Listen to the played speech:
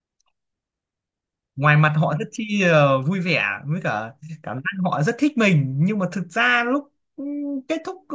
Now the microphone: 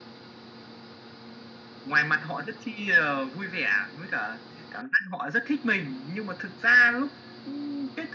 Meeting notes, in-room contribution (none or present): none